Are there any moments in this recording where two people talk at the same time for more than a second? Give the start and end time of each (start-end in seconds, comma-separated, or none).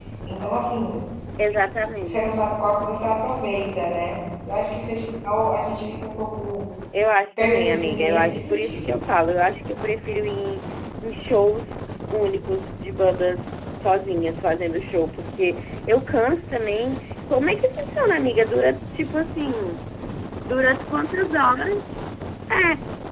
7.4-9.0